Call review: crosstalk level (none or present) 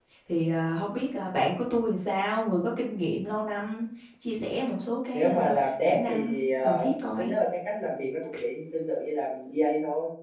present